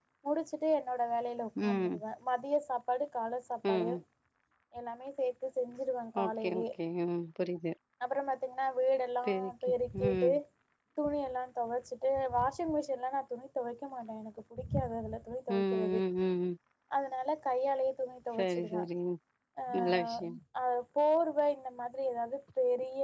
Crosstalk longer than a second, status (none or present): none